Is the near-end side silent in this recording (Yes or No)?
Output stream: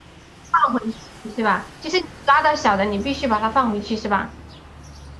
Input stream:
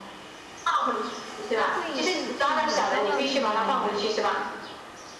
No